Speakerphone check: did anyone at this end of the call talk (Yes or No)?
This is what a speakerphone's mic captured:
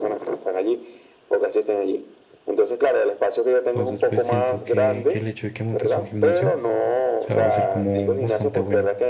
Yes